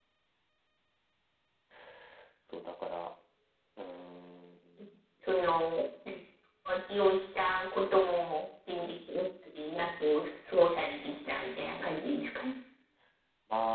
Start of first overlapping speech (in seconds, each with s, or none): none